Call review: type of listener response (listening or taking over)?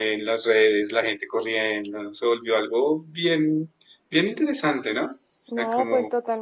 taking over